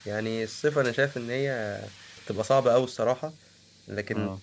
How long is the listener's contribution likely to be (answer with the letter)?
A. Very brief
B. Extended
A